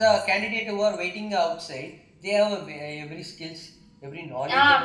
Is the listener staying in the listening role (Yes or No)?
No